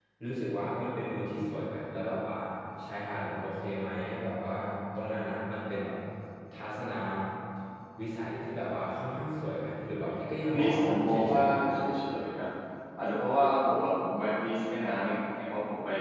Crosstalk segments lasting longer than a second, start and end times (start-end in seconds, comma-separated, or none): 10.6-11.8